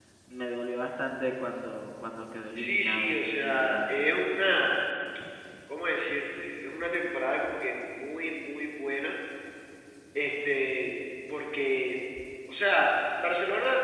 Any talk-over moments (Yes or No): Yes